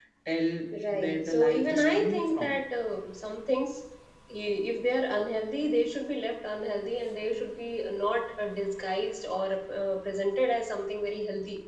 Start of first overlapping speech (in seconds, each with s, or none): 0.9 s